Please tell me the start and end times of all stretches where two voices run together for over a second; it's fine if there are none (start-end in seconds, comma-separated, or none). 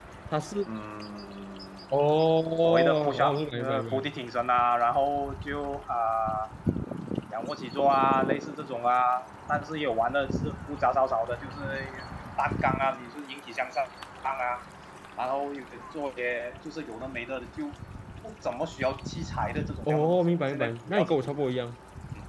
2.6-4.1, 19.9-21.4